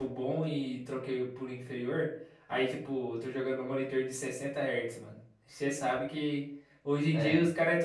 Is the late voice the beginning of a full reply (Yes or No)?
No